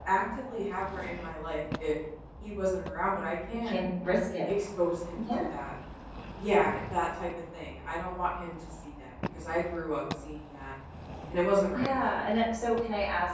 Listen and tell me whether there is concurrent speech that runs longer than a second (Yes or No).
No